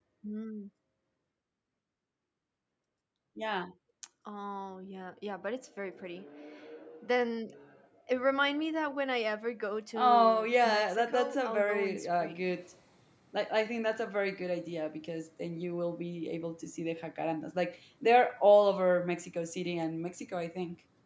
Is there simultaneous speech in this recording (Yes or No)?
Yes